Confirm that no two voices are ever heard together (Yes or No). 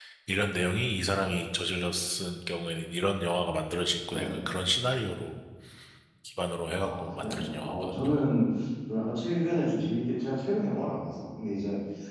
No